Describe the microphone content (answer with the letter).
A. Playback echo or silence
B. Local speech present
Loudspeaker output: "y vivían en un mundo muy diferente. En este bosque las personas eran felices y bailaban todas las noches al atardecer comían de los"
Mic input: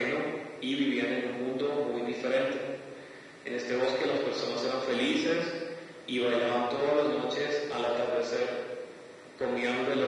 A